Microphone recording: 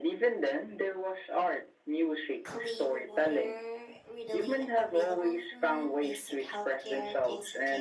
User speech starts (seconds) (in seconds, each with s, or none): 2.4 s